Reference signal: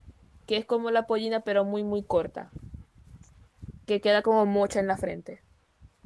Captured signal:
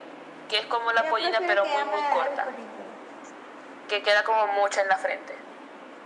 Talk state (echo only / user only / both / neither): both